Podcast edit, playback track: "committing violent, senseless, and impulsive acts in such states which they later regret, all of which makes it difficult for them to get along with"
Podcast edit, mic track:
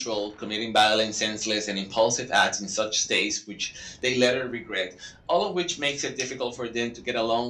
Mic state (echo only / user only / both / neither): echo only